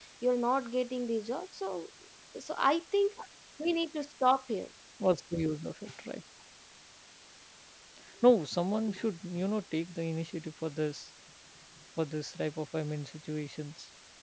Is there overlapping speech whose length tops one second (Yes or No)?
No